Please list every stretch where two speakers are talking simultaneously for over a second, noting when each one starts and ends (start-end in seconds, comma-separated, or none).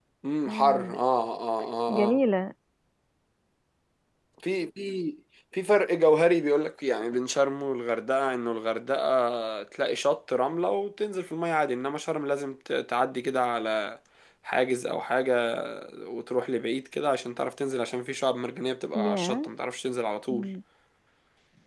none